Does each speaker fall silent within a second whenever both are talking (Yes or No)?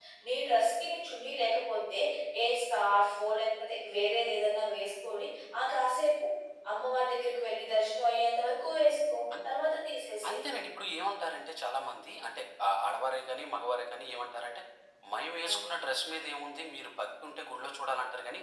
Yes